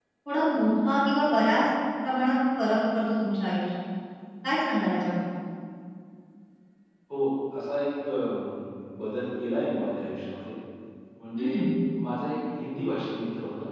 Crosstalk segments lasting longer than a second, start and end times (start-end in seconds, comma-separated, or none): none